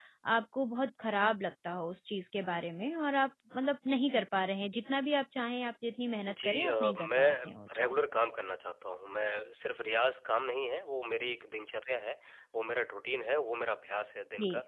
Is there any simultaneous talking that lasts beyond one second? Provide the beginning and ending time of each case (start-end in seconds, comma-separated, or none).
6.3-7.8